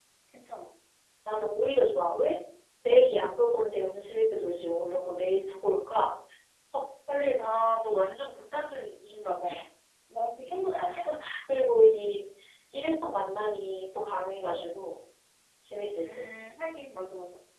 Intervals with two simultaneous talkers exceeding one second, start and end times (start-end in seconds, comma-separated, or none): none